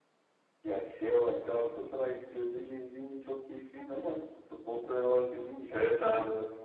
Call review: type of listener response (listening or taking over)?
taking over